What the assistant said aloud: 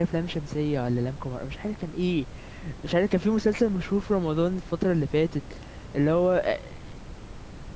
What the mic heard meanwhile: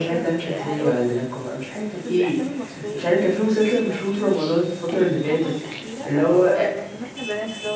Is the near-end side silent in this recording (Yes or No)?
No